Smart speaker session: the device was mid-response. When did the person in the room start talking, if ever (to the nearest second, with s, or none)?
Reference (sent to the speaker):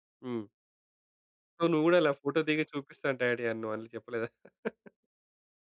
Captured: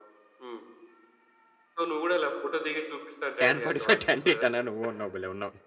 3 s